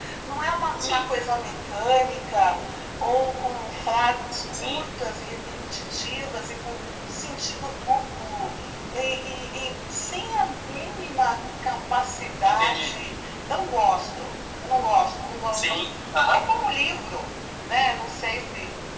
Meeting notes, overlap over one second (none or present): none